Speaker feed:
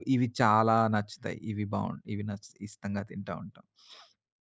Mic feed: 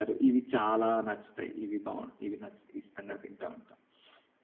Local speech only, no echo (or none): none